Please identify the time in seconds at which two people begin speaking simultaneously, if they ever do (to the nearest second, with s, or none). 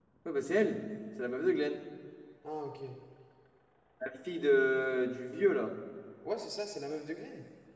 none